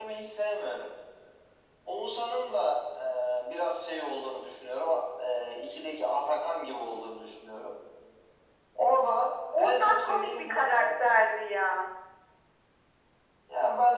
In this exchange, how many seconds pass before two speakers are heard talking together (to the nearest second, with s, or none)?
10 s